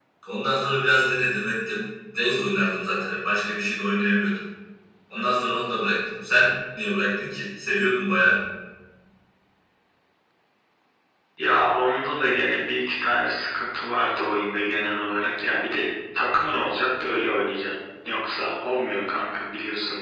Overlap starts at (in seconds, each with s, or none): none